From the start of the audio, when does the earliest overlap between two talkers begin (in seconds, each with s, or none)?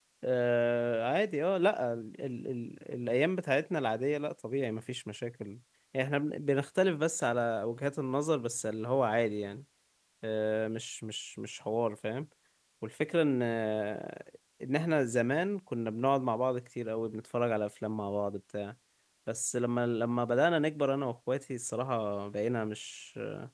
none